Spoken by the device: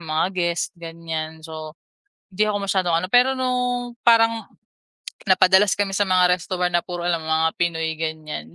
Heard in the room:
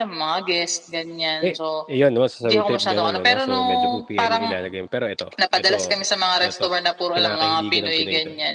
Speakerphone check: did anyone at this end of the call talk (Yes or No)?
Yes